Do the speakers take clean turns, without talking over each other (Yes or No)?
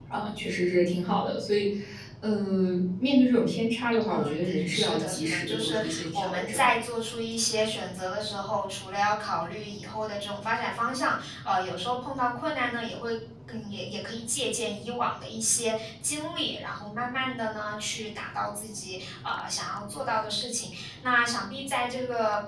No